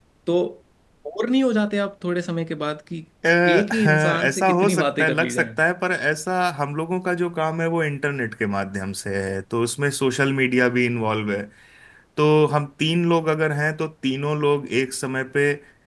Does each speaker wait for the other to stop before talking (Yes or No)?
No